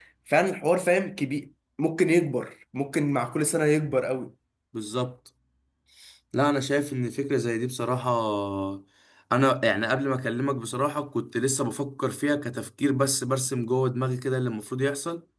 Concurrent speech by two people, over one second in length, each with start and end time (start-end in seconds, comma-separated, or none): none